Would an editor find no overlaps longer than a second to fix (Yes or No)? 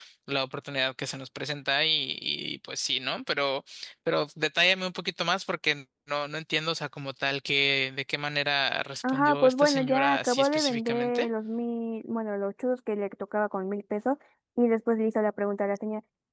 No